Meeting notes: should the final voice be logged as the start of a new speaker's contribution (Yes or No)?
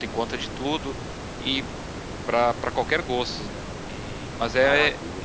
No